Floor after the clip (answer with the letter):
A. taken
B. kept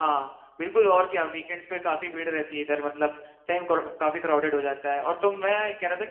B